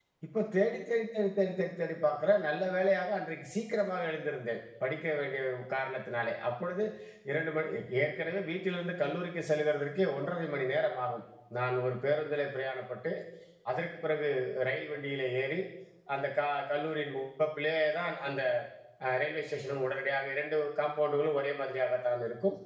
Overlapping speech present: No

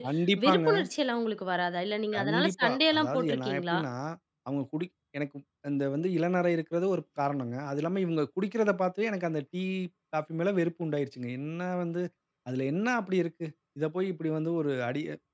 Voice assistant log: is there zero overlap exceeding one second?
No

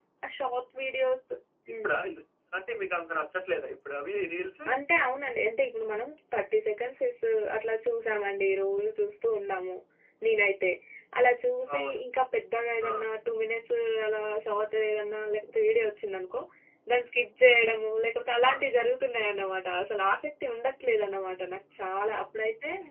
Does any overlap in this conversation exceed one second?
No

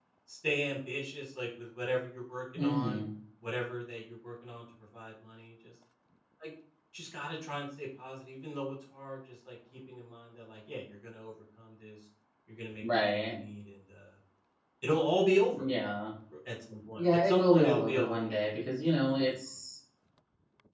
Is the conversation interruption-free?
No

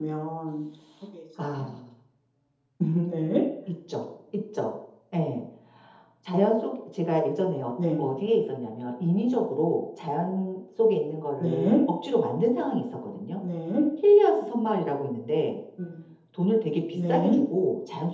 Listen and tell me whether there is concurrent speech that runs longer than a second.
No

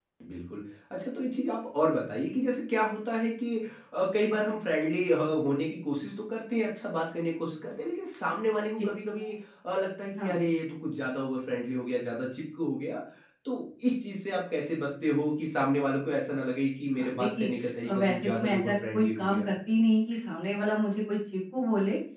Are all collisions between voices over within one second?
No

